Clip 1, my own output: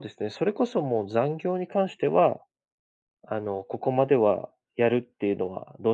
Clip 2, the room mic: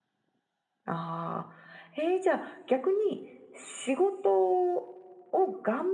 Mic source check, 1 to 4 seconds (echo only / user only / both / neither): user only